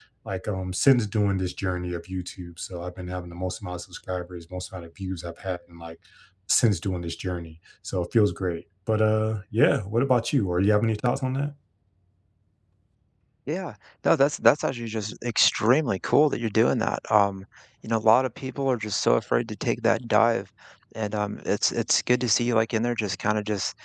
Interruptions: none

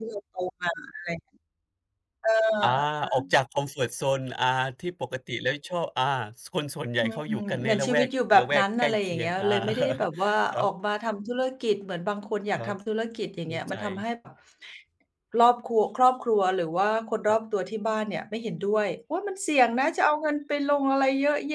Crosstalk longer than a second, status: present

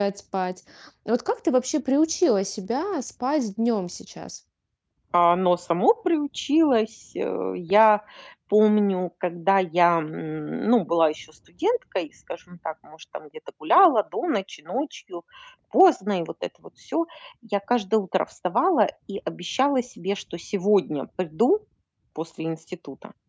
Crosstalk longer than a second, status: none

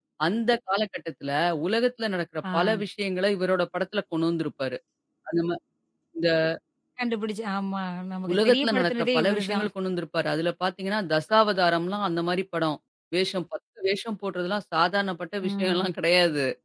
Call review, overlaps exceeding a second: present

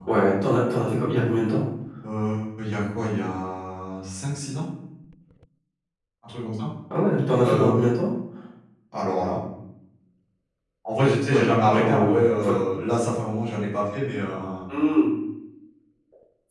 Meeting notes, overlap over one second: present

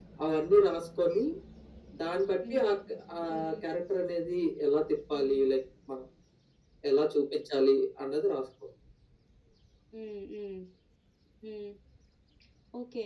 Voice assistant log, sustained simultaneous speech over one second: none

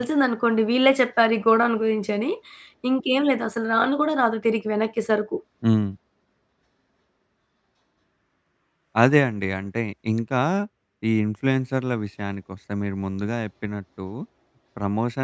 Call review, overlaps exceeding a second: none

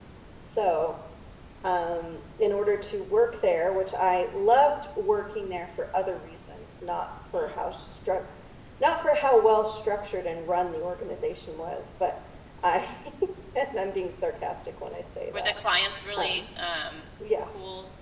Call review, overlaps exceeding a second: none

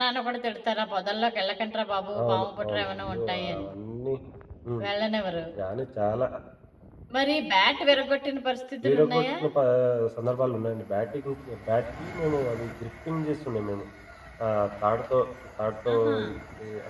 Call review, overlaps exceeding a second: present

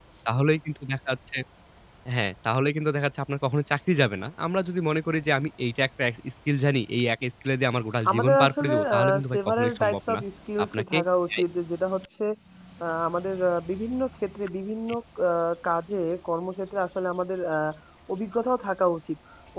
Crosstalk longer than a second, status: present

